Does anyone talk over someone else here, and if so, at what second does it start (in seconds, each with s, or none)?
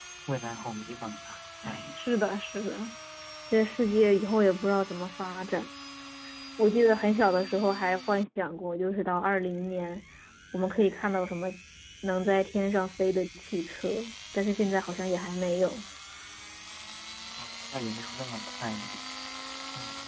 none